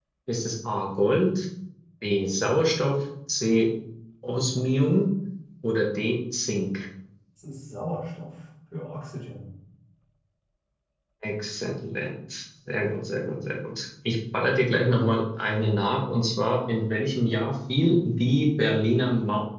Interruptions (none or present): none